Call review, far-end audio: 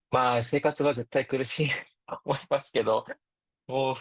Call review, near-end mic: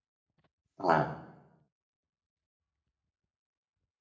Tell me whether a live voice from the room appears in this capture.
Yes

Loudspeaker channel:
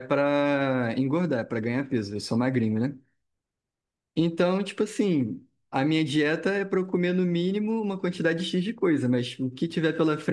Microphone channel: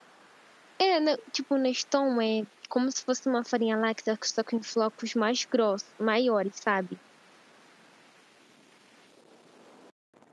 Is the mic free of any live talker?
No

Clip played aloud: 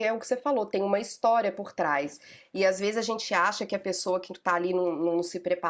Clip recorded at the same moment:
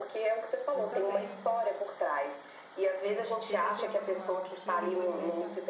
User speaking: Yes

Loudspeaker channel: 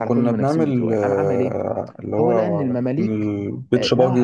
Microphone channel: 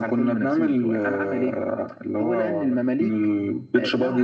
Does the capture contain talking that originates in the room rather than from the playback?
No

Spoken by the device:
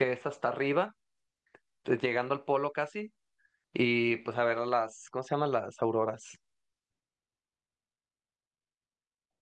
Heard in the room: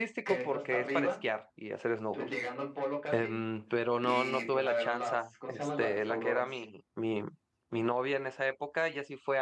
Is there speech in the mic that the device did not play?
Yes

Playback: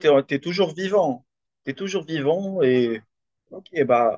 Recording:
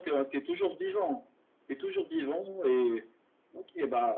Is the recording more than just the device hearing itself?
No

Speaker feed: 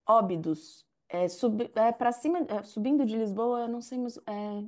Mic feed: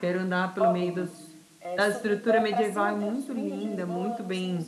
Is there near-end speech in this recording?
Yes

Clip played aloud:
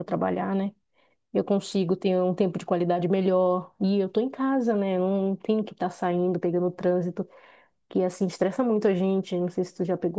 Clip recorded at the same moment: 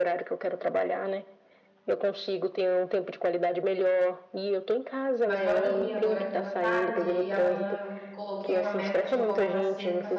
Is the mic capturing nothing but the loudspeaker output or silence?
No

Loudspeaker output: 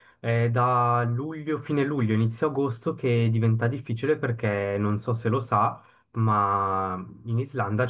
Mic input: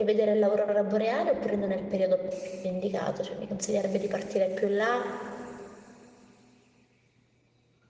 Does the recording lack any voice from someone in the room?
No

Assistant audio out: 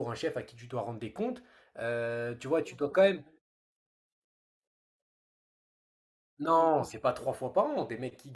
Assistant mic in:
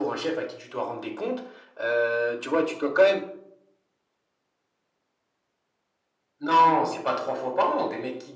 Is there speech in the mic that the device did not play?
No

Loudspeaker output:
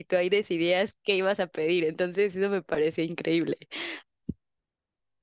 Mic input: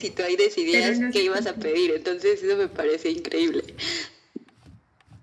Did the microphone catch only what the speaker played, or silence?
No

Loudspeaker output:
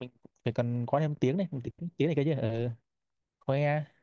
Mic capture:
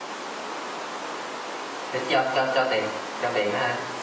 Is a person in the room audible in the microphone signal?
Yes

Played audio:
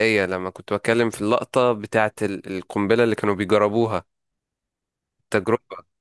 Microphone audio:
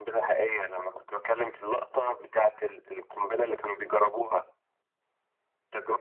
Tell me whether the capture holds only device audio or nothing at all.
Yes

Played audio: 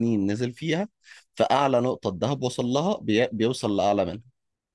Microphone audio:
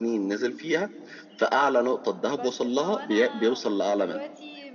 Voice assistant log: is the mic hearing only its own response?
No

